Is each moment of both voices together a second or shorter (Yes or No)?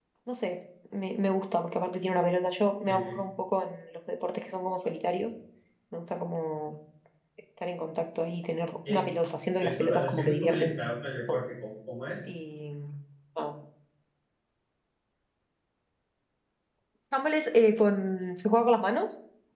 No